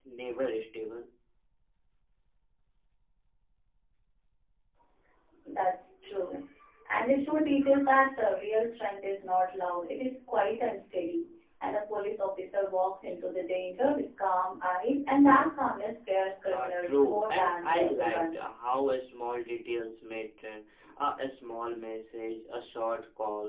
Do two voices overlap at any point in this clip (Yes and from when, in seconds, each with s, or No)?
Yes, from 16.5 s